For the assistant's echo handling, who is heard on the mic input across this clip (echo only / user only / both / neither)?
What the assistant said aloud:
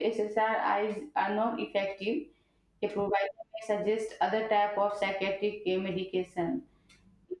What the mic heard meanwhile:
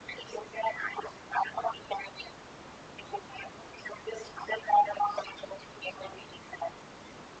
echo only